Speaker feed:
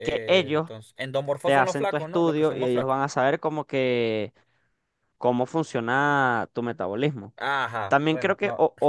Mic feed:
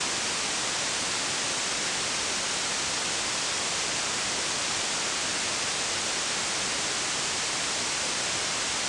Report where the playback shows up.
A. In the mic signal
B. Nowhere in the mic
B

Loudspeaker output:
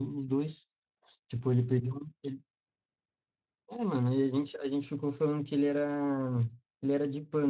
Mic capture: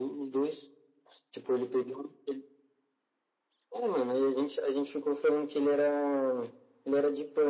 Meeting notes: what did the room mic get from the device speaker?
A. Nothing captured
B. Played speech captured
B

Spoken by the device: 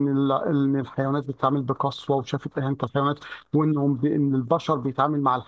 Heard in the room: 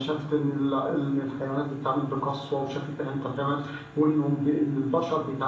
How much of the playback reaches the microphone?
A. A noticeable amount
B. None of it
A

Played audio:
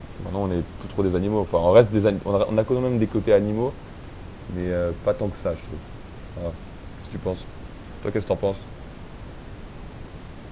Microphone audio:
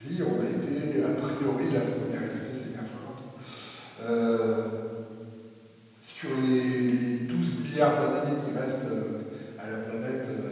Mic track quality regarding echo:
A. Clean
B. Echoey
A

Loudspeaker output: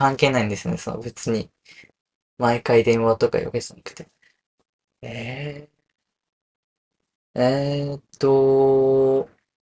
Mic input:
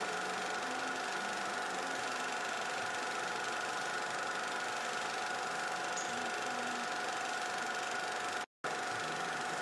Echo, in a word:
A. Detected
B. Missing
B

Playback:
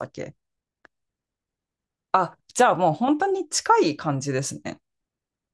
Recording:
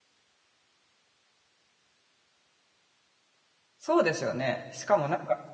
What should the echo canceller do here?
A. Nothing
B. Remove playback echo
A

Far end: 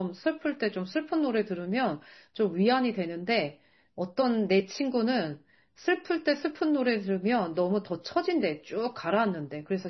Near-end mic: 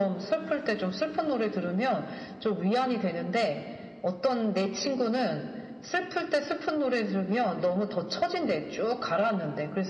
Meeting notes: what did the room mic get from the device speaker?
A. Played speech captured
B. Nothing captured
A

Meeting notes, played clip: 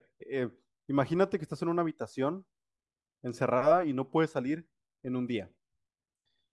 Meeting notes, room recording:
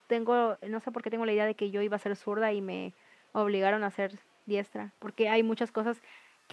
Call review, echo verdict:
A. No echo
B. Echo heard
A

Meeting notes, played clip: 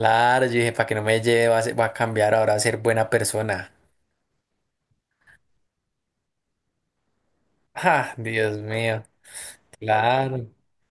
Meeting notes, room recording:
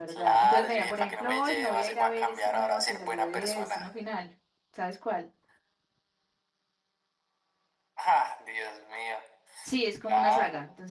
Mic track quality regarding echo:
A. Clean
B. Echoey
B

